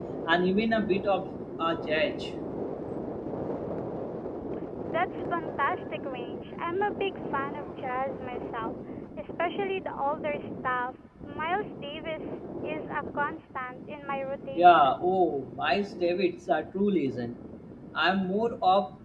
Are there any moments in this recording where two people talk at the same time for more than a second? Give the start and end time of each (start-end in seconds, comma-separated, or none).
none